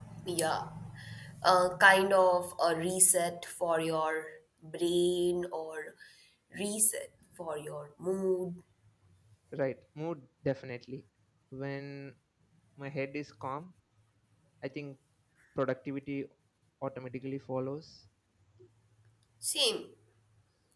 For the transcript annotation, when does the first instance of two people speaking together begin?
none

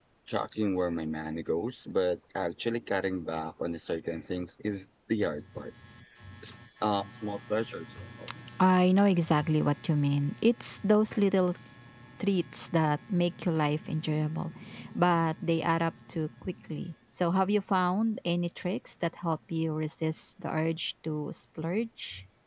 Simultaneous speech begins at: none

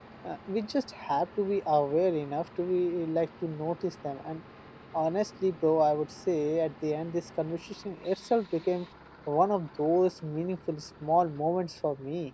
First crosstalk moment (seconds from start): none

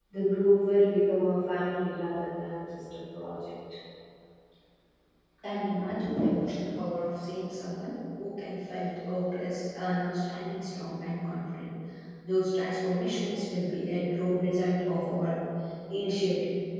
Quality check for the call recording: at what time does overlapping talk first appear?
none

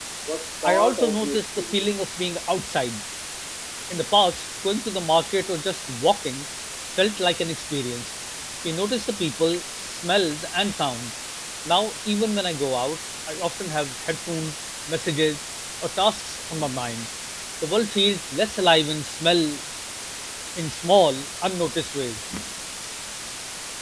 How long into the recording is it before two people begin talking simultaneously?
0.6 s

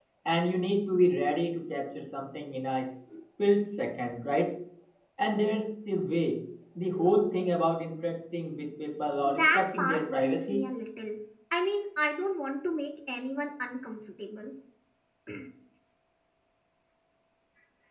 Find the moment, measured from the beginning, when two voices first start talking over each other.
9.2 s

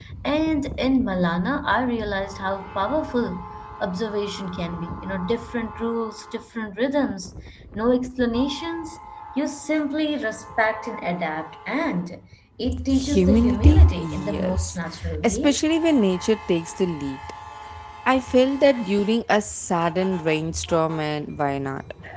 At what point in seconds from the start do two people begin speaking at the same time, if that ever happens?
12.7 s

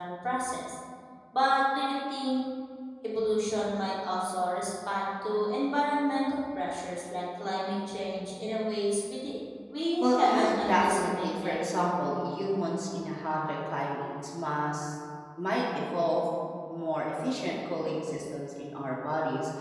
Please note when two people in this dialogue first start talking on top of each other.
10.0 s

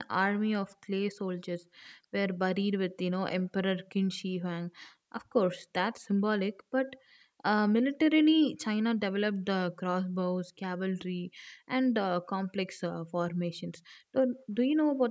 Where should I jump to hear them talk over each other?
none

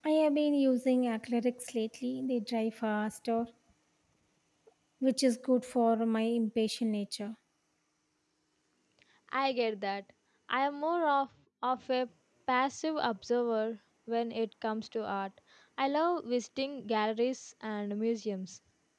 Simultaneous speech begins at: none

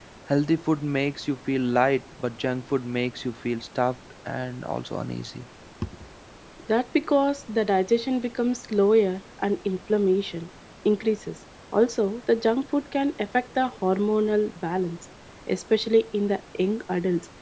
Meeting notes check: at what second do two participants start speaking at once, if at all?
none

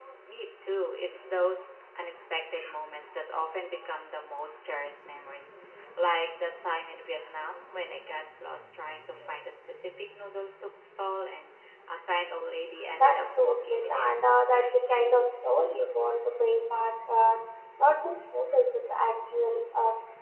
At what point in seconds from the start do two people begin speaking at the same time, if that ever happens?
12.9 s

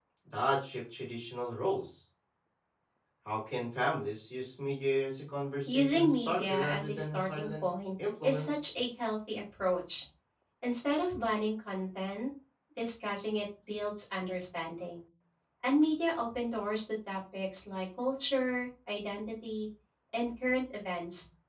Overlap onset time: 5.7 s

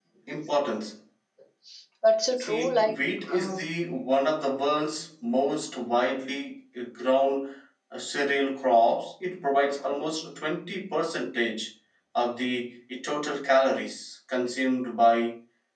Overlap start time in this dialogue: 2.4 s

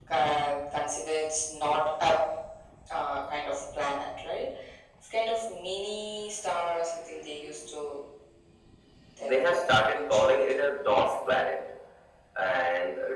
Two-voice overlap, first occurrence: 9.2 s

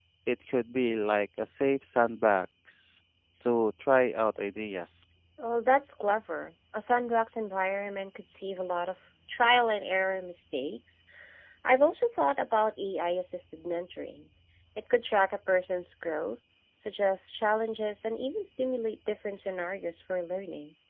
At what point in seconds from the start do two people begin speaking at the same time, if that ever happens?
none

